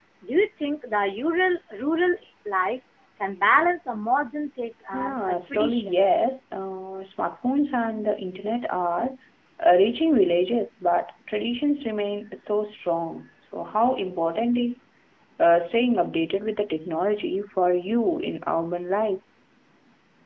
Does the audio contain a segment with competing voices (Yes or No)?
Yes